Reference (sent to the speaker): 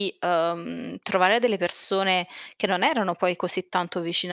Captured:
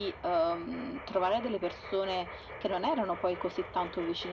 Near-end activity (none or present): none